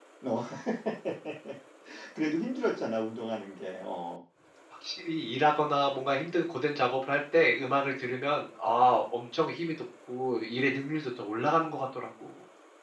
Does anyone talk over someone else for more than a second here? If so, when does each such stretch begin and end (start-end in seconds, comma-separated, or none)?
none